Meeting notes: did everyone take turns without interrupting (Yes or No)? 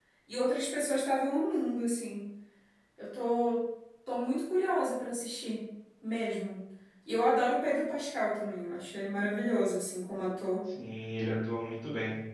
Yes